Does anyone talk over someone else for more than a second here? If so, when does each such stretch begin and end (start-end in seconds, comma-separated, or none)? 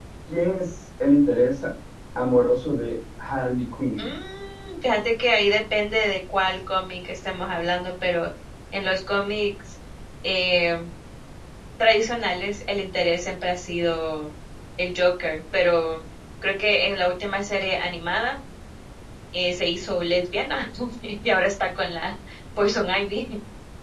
none